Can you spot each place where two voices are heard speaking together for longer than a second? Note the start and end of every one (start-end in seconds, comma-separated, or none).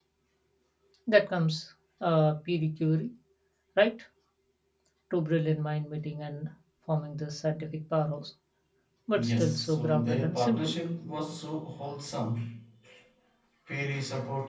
9.2-10.7